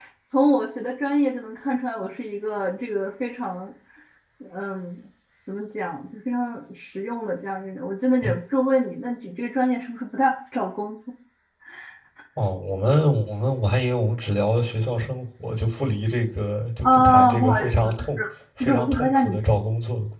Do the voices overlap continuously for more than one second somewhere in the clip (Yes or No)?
Yes